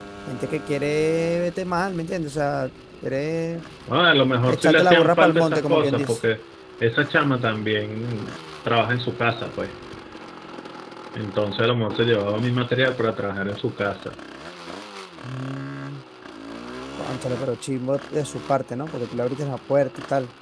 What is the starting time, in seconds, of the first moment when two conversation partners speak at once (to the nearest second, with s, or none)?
4 s